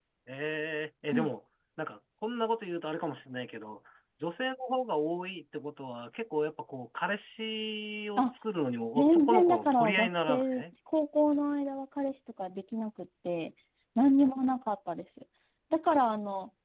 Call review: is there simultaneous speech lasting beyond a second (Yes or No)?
Yes